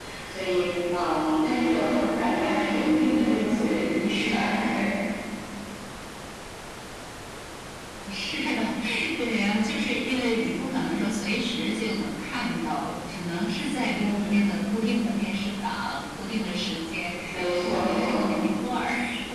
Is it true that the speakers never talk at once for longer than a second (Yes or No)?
Yes